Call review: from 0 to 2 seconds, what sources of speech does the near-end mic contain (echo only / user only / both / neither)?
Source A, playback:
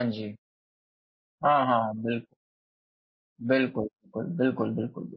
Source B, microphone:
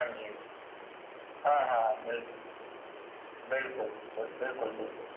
echo only